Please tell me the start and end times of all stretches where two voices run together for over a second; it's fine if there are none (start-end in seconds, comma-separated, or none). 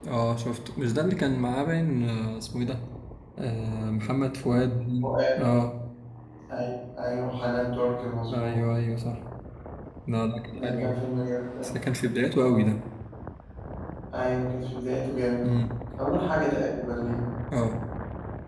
none